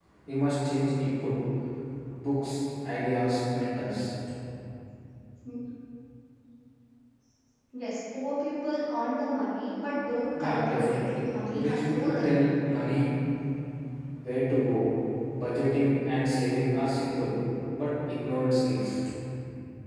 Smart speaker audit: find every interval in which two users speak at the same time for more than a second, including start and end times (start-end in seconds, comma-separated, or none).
10.4-12.5